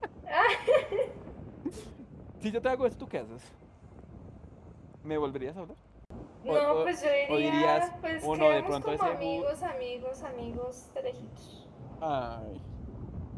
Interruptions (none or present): present